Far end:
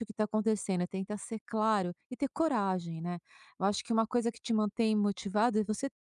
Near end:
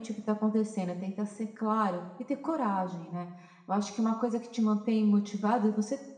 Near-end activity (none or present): none